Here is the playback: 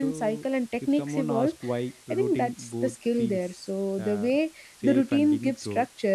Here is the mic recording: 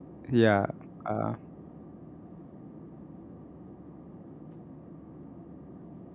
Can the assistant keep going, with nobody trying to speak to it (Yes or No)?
No